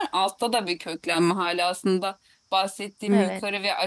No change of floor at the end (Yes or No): Yes